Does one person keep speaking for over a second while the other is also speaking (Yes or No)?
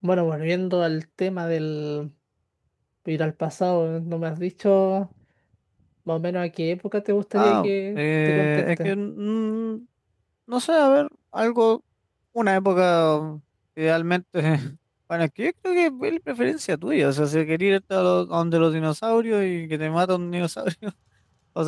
Yes